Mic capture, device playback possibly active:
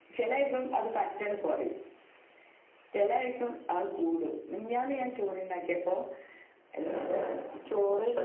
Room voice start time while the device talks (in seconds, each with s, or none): none